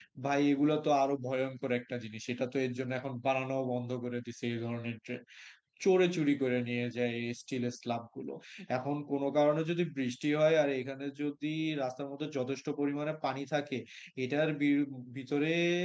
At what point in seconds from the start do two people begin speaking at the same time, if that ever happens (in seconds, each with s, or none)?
none